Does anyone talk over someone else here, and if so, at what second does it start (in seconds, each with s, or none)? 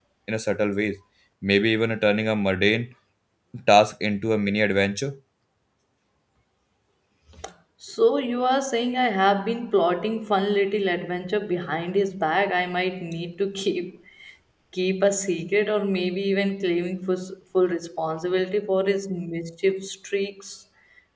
none